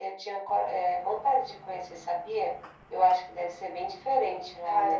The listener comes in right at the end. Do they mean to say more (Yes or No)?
Yes